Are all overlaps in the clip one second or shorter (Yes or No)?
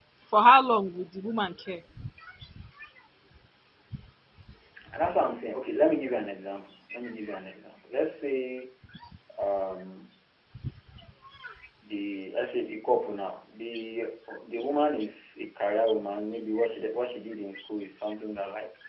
Yes